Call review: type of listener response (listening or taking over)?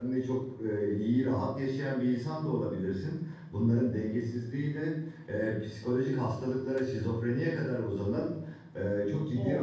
listening